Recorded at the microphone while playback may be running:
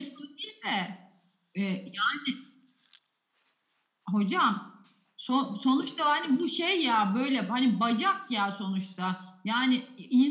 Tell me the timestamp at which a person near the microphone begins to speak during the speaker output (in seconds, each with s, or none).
none